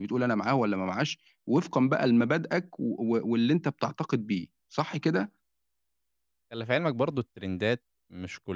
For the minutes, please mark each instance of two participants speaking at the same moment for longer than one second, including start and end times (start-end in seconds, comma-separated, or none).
none